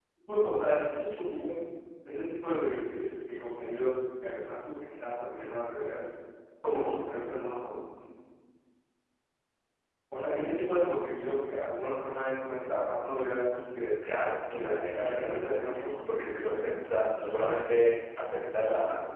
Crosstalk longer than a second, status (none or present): present